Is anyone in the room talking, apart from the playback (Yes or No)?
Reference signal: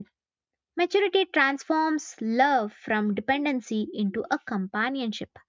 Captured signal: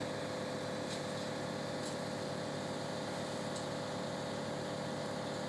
No